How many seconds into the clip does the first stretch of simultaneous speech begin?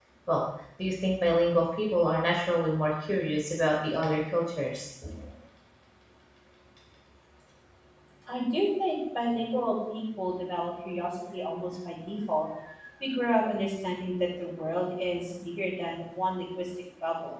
none

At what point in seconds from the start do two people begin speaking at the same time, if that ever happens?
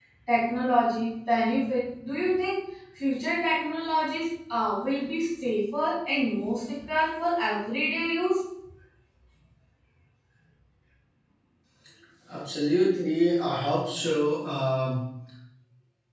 none

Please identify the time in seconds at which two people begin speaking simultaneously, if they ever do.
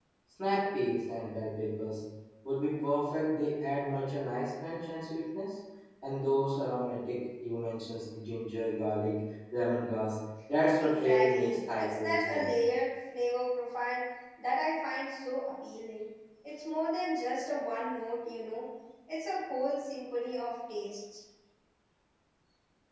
10.8 s

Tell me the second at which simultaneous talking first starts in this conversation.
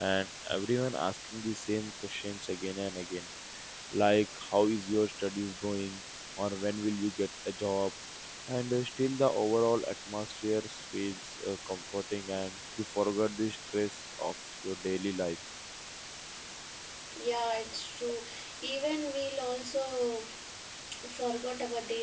none

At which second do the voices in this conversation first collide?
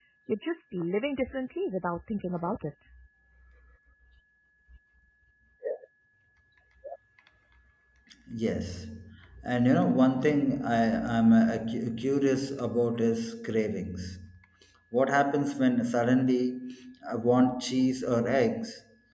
none

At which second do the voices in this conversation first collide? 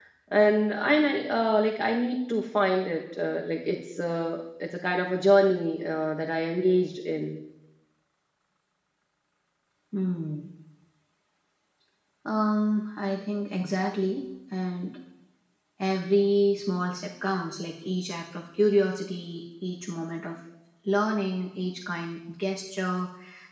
none

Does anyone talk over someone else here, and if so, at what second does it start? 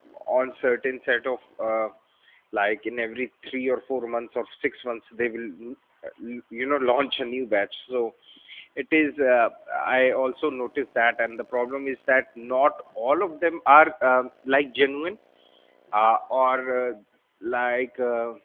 none

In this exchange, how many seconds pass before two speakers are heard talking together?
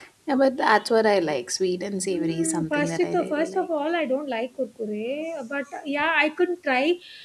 2.1 s

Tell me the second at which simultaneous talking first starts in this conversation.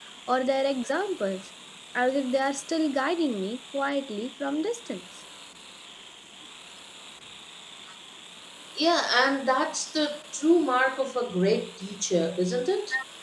none

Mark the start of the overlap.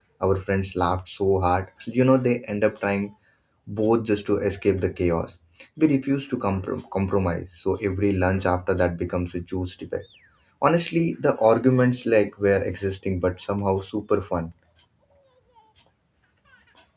none

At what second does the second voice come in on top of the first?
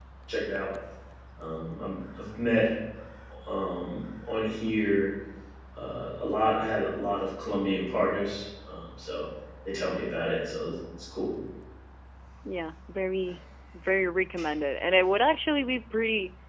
none

